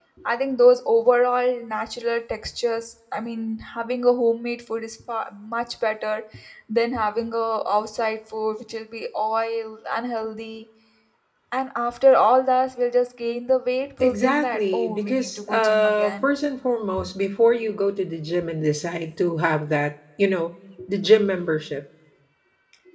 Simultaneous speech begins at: 14 s

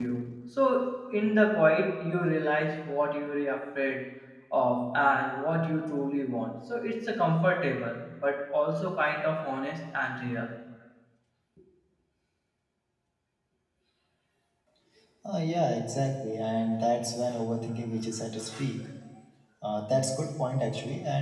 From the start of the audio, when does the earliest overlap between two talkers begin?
none

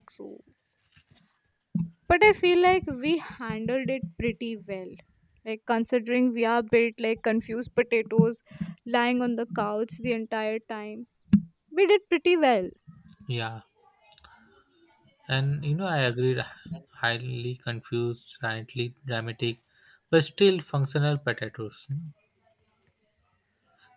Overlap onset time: none

